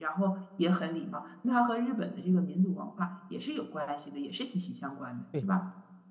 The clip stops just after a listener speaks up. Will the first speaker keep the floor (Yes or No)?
No